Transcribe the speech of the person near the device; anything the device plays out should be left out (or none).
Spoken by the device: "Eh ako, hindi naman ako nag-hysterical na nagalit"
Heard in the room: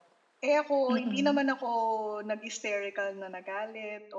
Mm.